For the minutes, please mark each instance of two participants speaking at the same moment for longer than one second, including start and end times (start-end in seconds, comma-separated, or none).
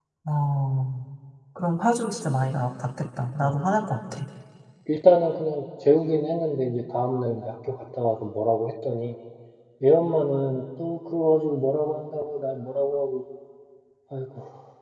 none